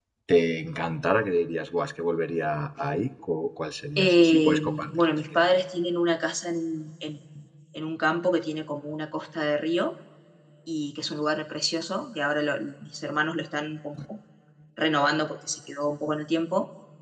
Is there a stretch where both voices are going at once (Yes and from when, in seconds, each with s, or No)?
Yes, from 4.0 s